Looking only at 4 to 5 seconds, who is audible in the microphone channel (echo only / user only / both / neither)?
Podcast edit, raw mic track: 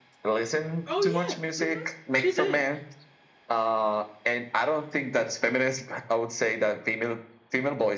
echo only